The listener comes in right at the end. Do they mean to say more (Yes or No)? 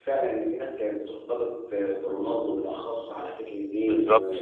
No